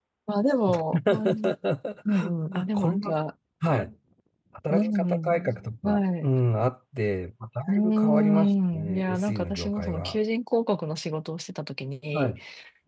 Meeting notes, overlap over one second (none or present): present